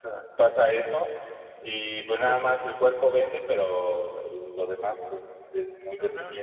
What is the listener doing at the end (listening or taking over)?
taking over